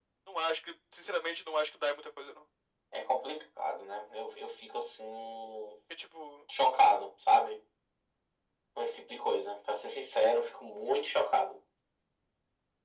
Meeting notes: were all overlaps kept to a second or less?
Yes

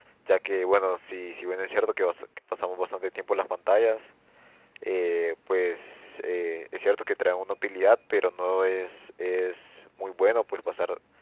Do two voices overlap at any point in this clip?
No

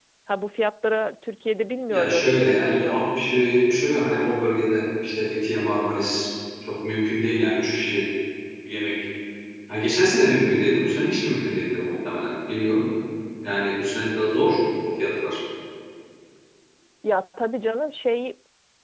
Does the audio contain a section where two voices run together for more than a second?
Yes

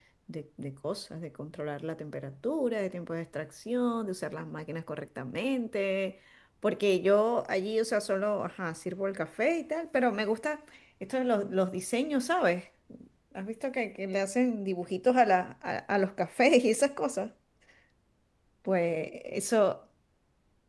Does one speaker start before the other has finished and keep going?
No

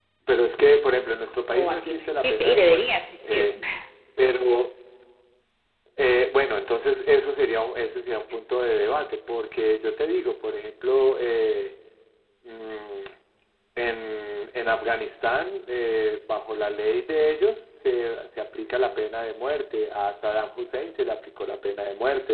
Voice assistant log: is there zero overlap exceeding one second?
No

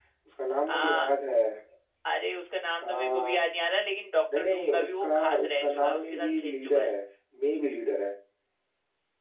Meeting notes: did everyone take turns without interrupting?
No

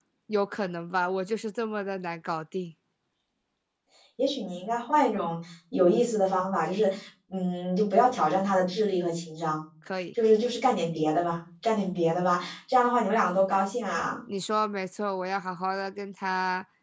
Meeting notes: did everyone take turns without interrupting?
Yes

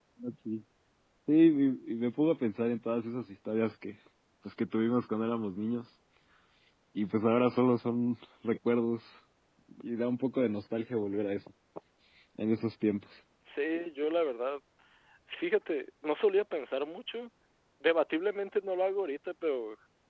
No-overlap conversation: Yes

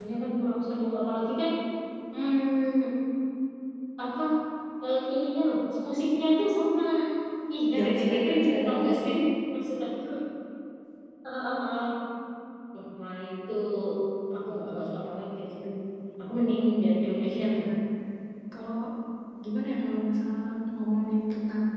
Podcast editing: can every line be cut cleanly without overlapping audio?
No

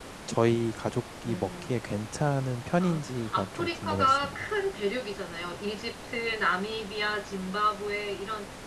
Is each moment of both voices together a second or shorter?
No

